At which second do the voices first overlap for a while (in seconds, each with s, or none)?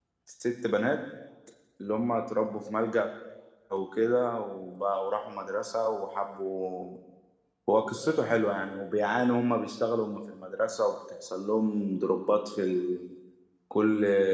none